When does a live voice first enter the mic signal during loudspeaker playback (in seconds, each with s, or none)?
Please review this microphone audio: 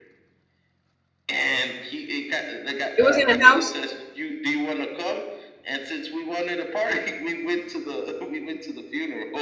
3.0 s